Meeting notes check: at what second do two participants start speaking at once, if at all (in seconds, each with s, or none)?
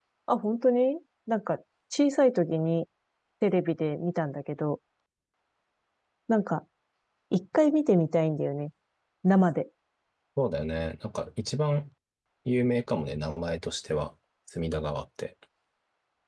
none